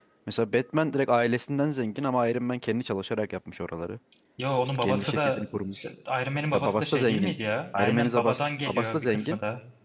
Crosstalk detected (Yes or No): Yes